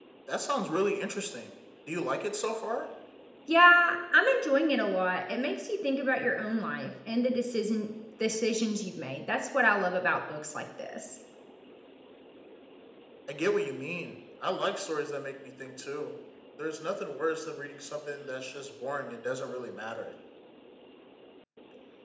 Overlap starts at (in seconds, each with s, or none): none